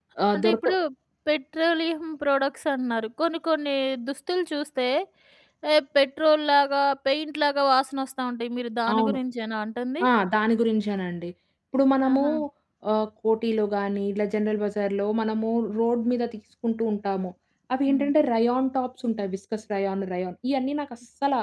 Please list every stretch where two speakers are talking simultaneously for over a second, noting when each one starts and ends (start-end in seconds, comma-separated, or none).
none